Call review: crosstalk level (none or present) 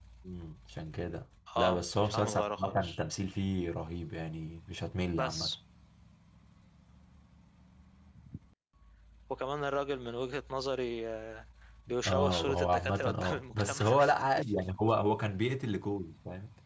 present